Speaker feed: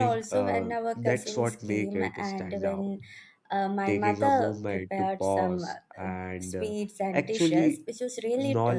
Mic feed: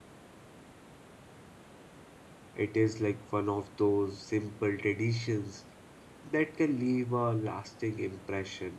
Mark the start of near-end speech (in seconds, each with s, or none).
2.5 s